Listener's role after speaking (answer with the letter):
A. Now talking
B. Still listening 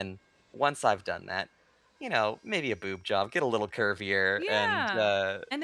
A